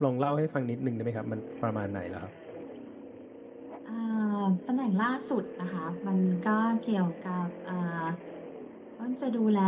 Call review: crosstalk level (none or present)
none